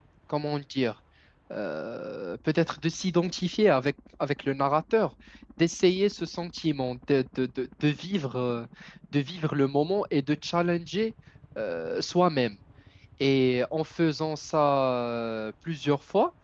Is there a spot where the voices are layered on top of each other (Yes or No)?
No